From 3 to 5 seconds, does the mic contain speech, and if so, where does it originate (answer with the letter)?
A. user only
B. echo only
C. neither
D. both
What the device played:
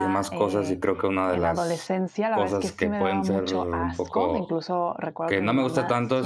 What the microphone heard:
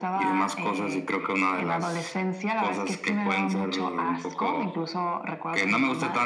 B